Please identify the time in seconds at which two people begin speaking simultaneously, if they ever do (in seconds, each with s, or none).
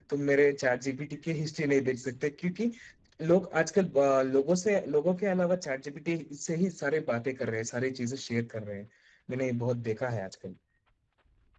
none